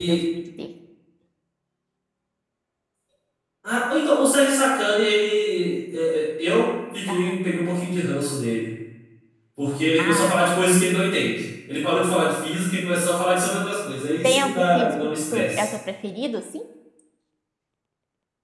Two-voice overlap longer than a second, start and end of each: 14.2-15.7

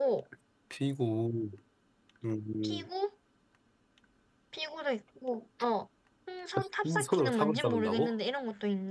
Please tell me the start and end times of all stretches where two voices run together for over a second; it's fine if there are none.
6.8-8.1

